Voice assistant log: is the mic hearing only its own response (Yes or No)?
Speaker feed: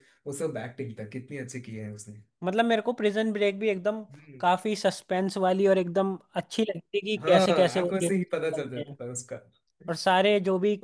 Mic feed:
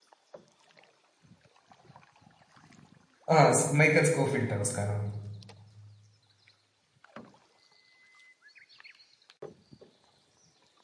No